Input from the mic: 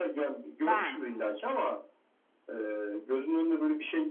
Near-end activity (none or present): present